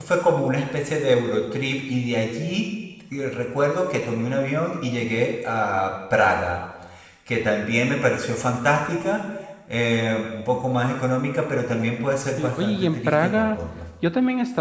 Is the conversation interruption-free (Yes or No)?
No